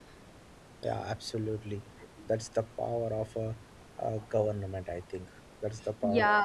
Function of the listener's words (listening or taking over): taking over